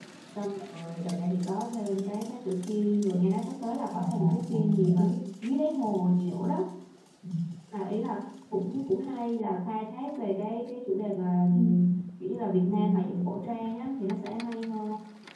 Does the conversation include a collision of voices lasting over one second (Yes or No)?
Yes